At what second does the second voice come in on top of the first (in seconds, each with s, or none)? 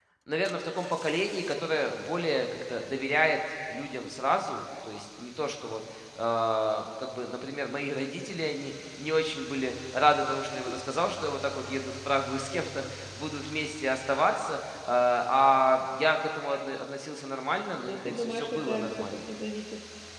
17.8 s